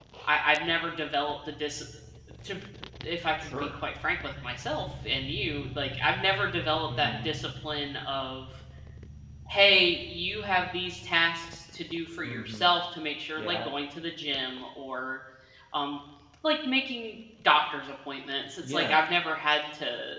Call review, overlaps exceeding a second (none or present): none